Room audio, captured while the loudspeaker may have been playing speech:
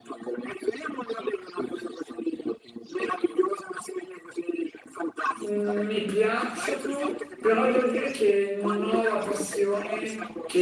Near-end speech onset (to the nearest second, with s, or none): 5 s